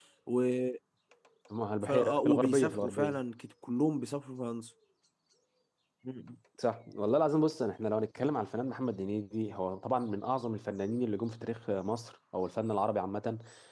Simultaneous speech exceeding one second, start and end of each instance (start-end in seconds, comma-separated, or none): 1.8-3.2